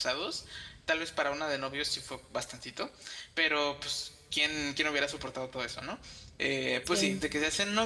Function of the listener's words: listening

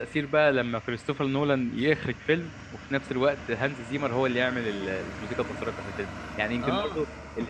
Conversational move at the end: listening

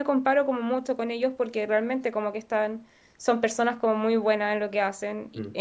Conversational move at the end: listening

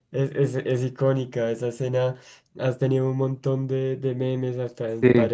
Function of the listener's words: listening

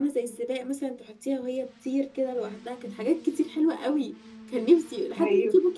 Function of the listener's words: listening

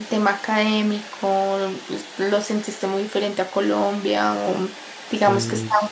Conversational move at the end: listening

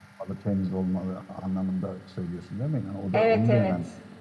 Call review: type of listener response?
taking over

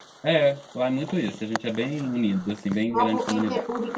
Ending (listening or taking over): taking over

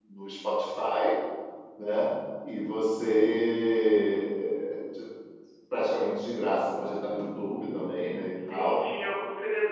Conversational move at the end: taking over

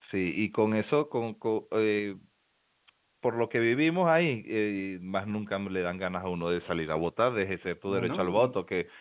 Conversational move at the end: listening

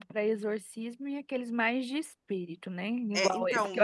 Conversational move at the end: taking over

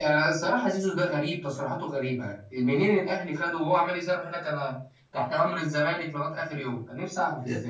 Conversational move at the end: taking over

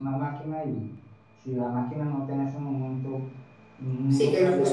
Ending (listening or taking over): taking over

